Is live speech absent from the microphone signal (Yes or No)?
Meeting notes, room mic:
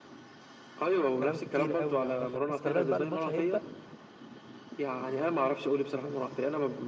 No